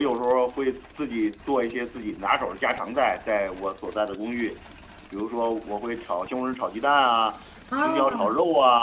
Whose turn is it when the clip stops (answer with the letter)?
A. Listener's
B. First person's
B